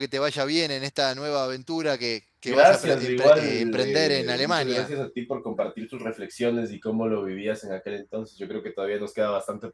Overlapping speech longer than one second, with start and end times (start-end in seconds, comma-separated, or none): 2.5-4.9